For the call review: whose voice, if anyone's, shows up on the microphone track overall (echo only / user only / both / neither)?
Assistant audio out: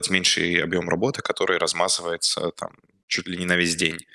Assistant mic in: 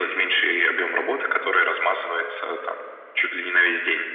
echo only